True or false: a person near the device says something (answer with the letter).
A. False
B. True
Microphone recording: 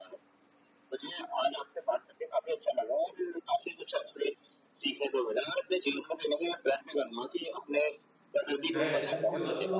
B